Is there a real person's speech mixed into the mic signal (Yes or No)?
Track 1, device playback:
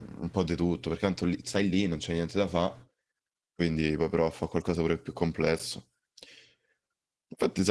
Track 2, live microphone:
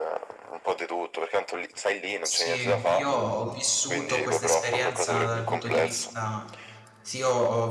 Yes